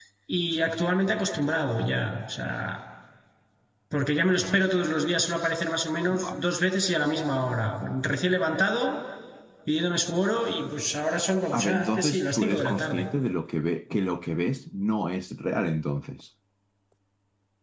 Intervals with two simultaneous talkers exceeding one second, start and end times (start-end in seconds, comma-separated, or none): 11.5-13.0